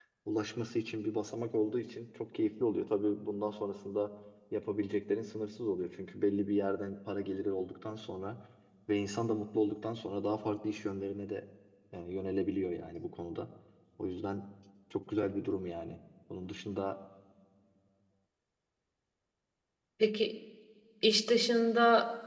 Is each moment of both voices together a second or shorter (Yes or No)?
Yes